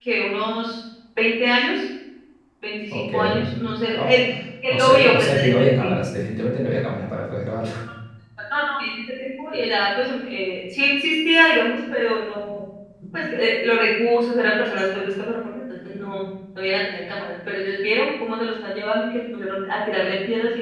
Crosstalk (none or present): present